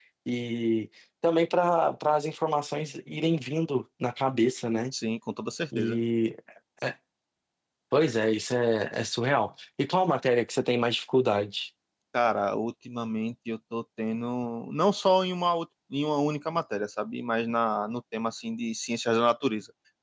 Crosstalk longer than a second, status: none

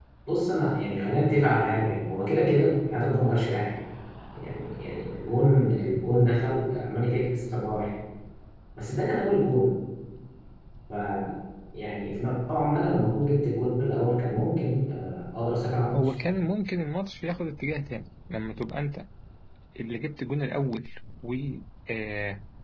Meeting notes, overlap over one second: none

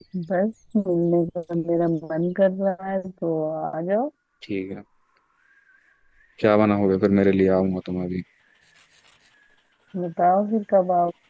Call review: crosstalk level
none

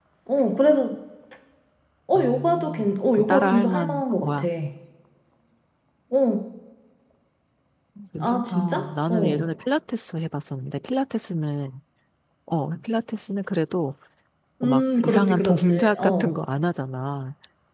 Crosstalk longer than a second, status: present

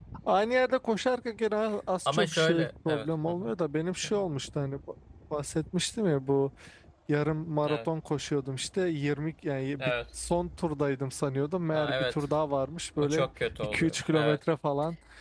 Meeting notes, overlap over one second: present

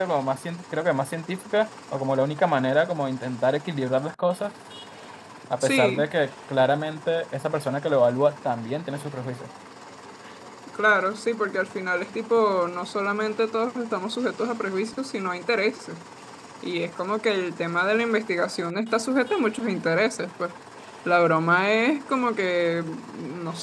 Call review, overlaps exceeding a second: none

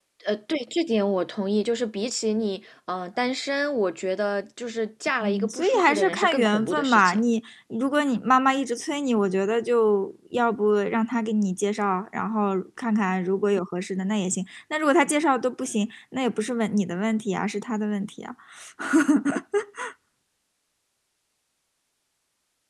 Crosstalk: present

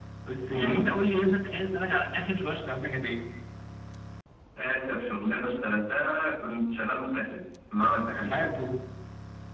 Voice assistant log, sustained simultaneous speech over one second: none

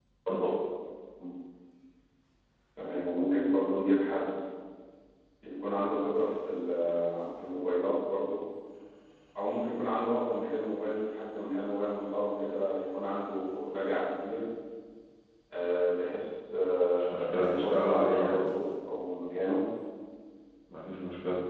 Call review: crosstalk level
present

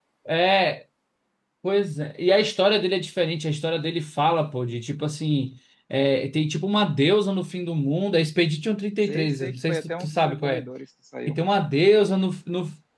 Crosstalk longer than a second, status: present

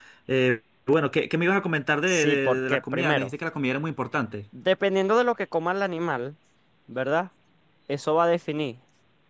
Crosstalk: present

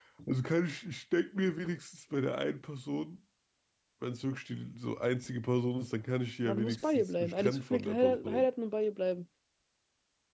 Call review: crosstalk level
present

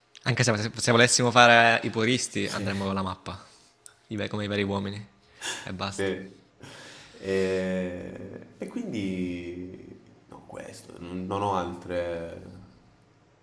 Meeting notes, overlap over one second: none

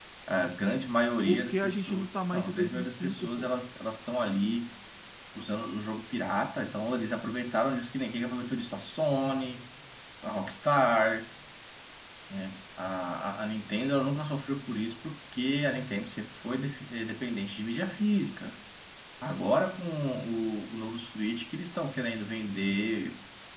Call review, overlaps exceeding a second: present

